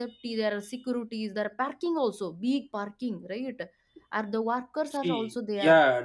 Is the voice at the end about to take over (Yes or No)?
Yes